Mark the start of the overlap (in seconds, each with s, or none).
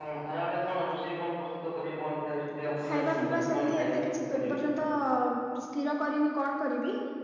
2.6 s